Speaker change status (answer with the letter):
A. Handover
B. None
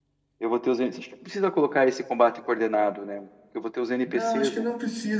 A